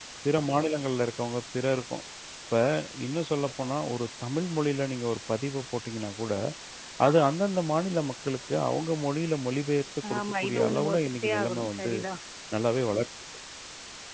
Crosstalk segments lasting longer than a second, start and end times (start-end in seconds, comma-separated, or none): 10.2-11.9